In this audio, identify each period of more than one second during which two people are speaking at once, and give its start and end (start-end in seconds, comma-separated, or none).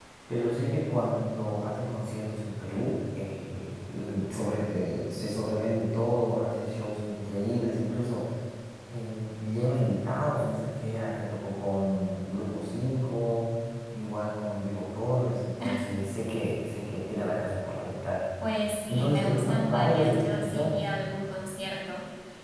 18.9-20.9